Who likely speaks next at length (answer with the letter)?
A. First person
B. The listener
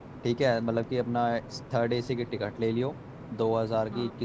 A